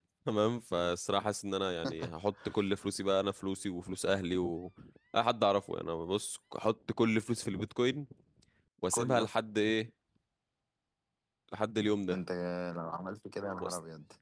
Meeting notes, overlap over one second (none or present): none